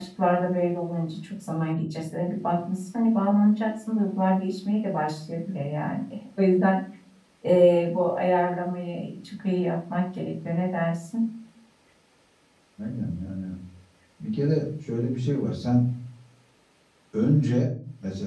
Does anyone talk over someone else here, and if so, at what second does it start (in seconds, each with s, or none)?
none